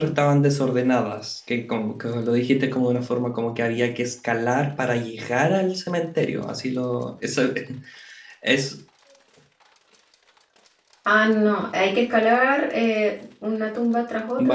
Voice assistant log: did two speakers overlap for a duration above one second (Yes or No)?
No